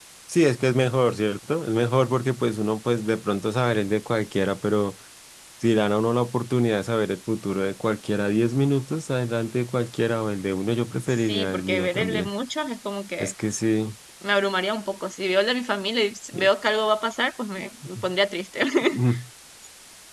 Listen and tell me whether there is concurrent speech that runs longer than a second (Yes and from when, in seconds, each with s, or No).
Yes, from 11.1 s